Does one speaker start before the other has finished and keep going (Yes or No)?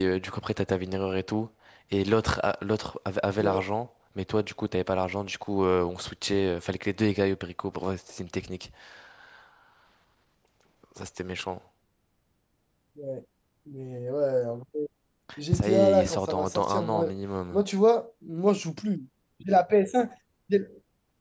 Yes